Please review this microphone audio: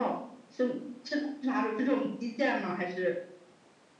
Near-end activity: none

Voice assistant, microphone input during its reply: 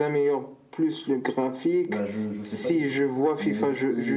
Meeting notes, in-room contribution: present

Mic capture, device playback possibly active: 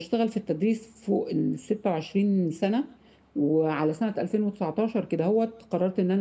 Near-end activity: present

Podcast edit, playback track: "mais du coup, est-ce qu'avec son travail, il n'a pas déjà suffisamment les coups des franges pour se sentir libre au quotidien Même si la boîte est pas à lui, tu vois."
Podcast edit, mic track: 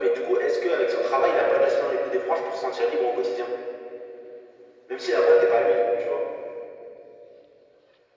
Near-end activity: none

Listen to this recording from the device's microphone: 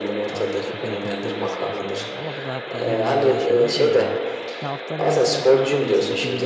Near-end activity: present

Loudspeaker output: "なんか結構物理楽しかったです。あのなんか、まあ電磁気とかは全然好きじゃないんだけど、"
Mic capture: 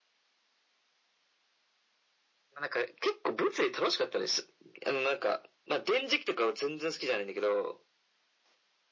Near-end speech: none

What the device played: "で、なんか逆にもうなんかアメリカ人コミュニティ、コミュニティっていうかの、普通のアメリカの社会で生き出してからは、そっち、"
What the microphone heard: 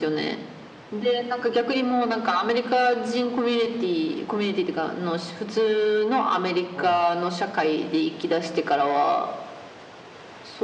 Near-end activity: present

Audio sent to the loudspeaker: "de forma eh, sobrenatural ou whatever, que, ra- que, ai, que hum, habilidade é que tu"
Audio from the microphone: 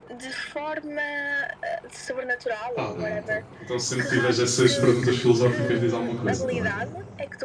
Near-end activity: present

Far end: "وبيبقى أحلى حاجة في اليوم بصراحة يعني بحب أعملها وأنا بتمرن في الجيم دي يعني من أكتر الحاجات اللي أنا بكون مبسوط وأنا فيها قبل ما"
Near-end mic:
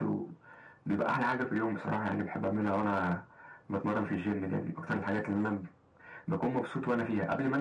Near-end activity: none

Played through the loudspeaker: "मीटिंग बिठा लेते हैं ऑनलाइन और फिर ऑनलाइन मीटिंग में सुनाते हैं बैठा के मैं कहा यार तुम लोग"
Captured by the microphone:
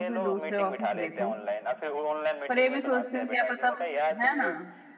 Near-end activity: present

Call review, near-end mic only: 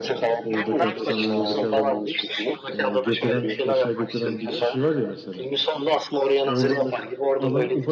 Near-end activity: present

